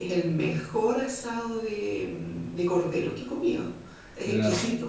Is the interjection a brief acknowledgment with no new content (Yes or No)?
Yes